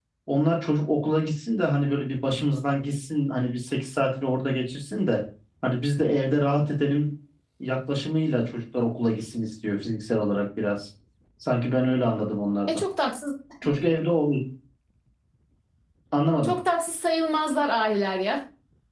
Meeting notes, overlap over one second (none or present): none